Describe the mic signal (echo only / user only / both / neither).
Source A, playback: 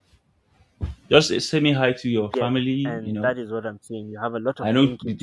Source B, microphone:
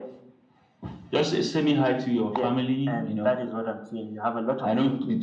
echo only